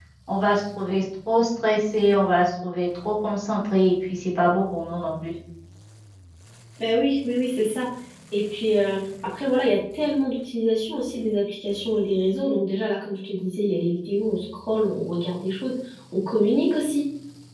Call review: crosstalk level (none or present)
none